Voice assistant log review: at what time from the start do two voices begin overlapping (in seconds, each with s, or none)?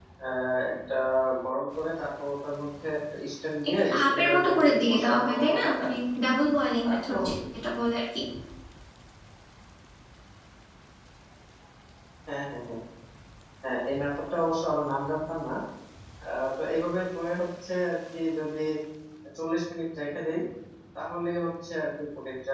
3.9 s